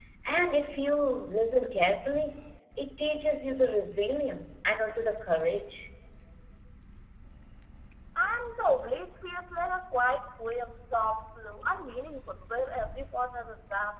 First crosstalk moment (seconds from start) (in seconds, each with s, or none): none